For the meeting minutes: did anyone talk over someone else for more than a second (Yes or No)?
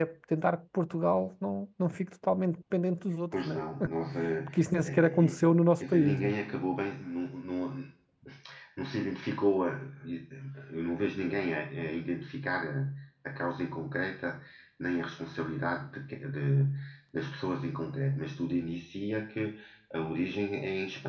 Yes